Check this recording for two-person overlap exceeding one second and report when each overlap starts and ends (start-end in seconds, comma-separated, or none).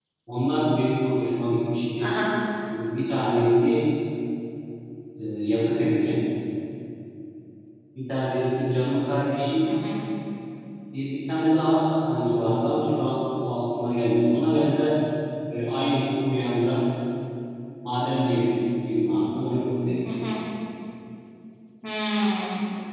none